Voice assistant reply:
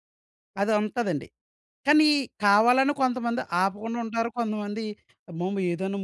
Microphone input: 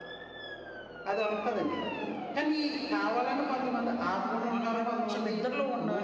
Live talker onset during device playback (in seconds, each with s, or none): 4.6 s